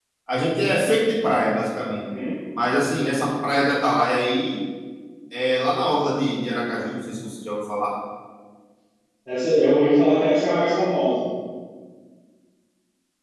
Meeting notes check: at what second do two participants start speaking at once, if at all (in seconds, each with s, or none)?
none